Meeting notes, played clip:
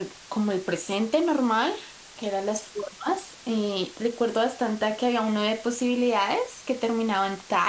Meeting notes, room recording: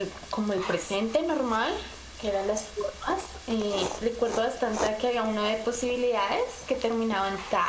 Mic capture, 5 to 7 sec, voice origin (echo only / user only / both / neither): echo only